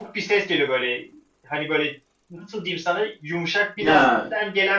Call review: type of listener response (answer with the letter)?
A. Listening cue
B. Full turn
A